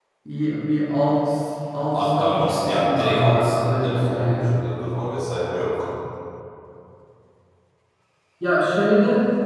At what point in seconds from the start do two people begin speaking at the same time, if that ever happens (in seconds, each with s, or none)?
1.9 s